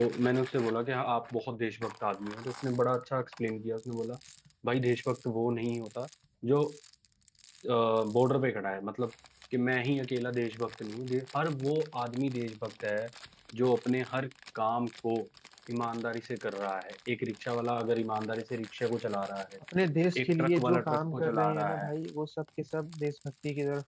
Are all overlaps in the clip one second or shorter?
No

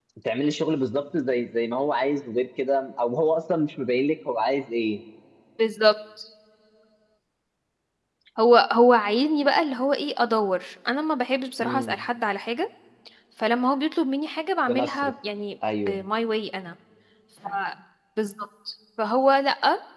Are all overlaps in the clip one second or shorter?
Yes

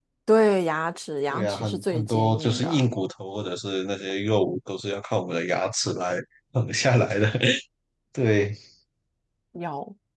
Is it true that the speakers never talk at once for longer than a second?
No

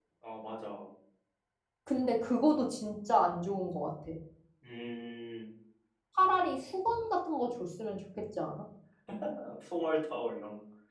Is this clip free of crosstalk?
Yes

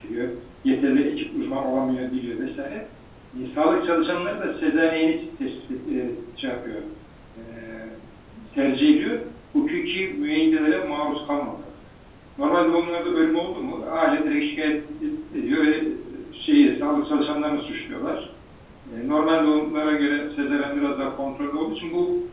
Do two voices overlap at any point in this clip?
No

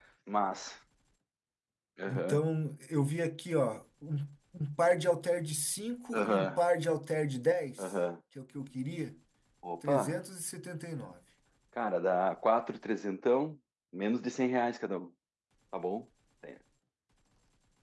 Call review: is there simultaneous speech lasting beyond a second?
No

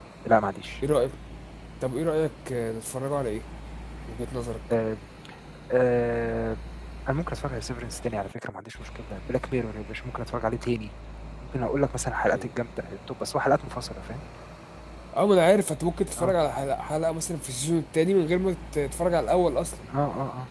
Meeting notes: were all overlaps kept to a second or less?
Yes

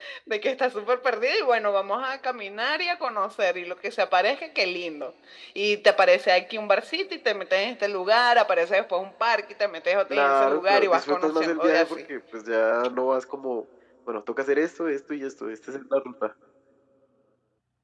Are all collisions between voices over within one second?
No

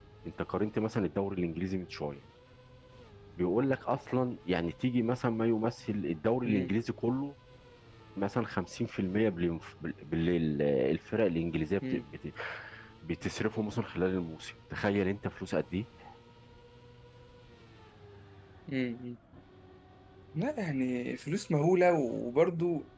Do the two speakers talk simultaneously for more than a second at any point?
No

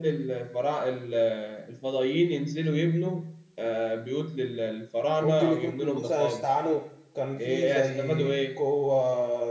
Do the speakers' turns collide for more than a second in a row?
Yes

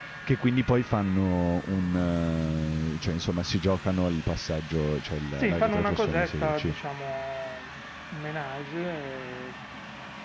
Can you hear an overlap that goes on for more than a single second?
Yes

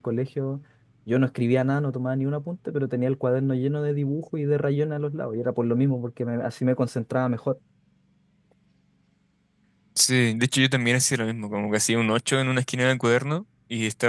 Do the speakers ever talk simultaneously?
No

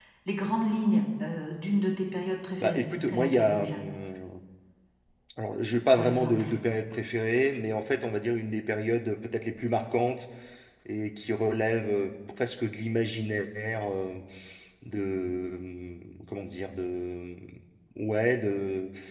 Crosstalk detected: Yes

